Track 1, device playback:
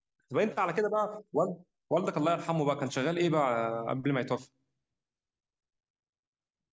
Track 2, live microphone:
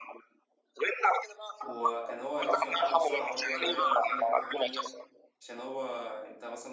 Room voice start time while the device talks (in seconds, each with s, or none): 1.6 s